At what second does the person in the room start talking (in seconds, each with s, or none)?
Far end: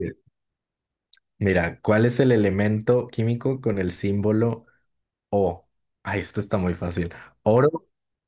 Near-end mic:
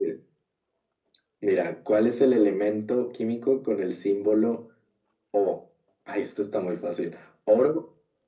none